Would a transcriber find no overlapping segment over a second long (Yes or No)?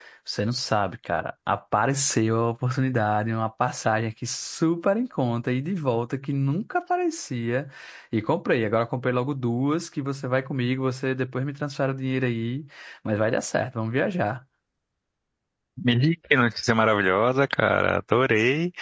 Yes